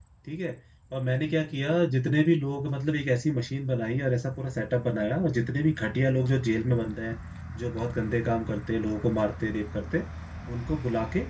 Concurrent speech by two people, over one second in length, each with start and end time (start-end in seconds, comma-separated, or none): none